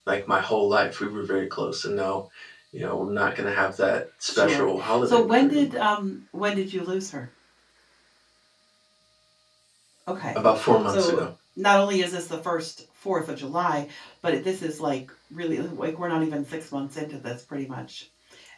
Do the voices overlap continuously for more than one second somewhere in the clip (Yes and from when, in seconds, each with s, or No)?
Yes, from 4.3 s